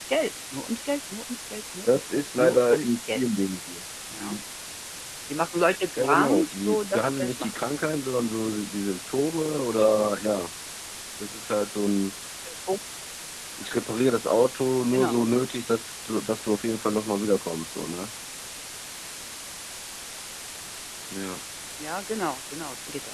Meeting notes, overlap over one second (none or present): present